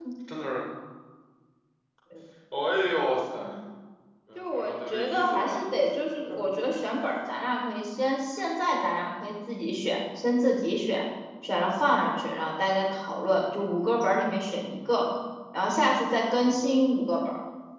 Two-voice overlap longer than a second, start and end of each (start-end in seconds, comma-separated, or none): 4.3-5.6